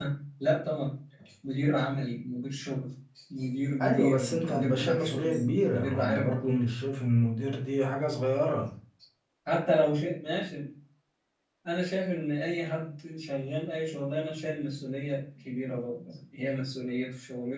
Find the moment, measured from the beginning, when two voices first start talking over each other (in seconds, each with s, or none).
3.8 s